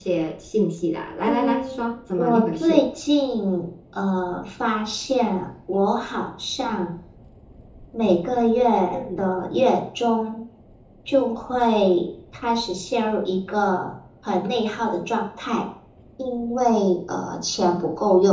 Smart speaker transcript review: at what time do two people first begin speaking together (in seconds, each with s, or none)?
1.3 s